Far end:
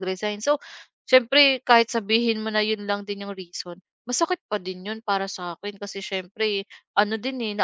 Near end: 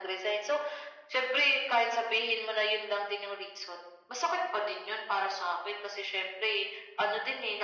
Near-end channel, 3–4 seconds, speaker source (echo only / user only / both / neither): echo only